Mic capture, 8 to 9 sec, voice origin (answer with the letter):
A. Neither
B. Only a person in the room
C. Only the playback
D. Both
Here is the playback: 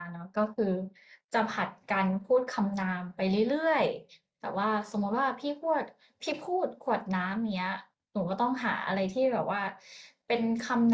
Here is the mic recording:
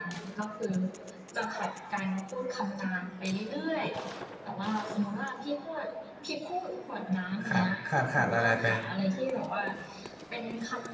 D